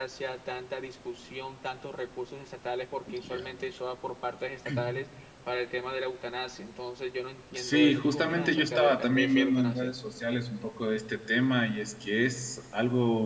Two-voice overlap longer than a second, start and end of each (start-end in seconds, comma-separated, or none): 7.5-9.9